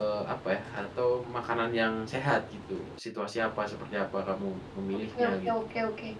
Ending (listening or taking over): taking over